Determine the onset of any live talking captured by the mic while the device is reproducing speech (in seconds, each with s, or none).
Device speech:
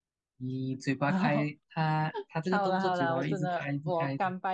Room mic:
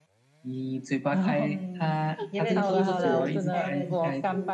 1.4 s